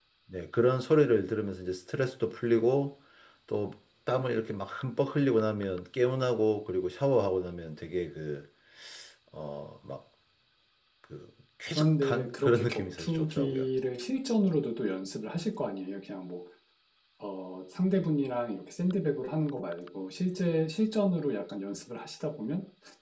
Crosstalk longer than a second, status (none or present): present